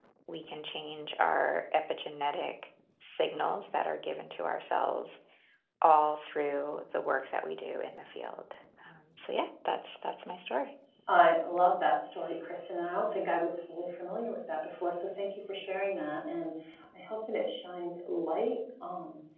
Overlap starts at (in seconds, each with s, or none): none